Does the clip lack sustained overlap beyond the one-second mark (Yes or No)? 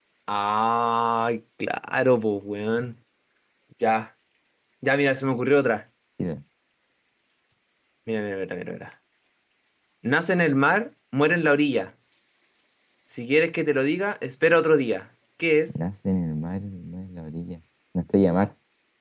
Yes